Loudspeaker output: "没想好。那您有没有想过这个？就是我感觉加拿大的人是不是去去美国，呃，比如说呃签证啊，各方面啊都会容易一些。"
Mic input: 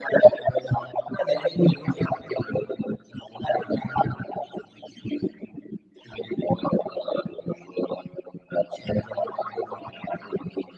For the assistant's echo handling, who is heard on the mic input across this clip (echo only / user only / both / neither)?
echo only